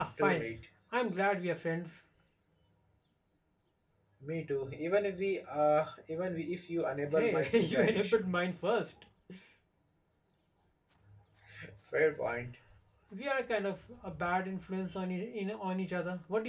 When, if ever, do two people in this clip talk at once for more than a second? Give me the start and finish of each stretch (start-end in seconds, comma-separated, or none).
7.1-8.3